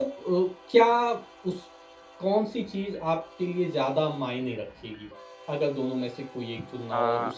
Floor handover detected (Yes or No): Yes